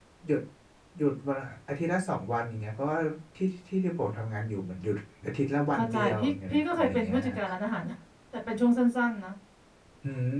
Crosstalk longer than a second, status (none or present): present